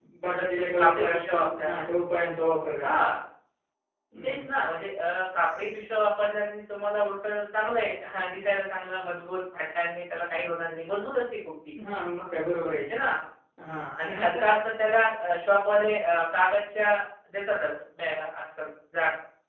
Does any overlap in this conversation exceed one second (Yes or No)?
Yes